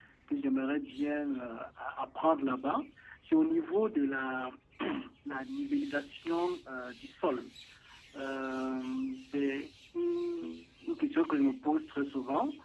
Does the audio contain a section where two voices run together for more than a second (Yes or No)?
No